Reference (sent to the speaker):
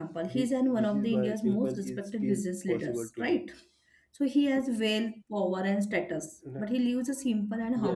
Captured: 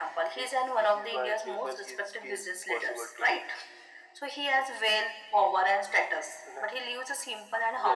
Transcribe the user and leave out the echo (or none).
none